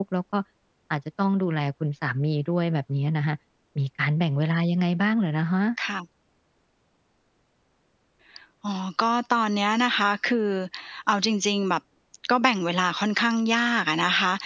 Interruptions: none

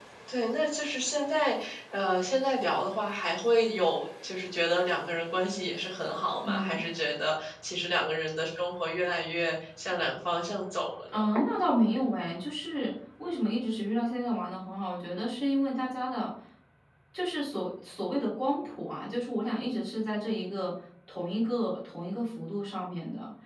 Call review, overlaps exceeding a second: none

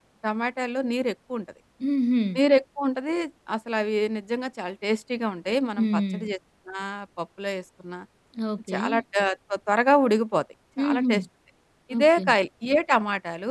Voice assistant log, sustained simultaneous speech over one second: none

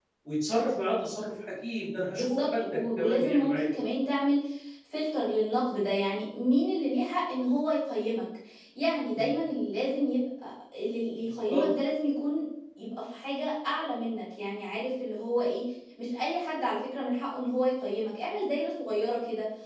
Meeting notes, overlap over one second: present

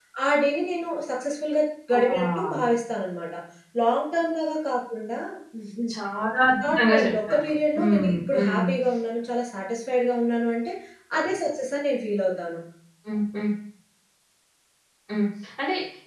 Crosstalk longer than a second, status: present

